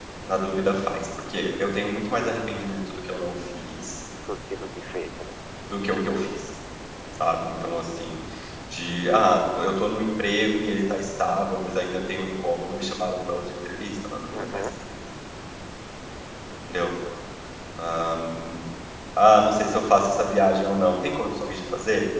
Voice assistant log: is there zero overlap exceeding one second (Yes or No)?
Yes